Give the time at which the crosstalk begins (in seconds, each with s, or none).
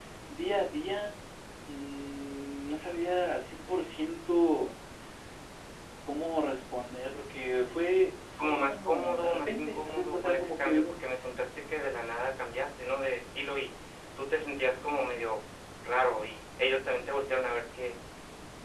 8.4 s